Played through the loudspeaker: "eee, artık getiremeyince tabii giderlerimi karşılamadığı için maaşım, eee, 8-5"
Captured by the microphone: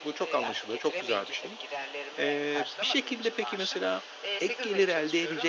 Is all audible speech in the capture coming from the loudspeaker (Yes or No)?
No